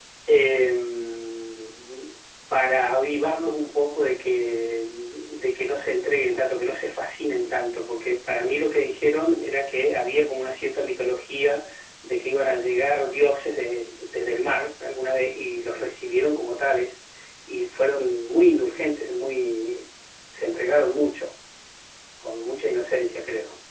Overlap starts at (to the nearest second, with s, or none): none